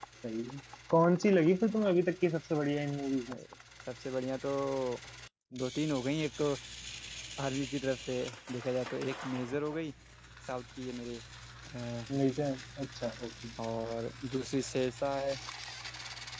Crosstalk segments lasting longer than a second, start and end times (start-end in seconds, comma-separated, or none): none